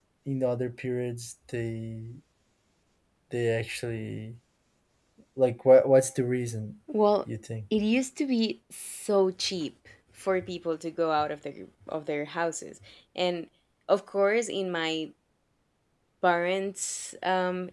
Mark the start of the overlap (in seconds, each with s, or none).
none